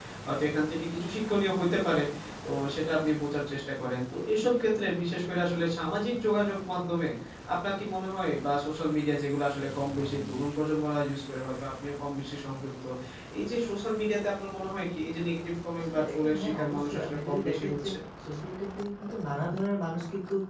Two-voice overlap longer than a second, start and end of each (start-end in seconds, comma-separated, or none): 15.9-17.9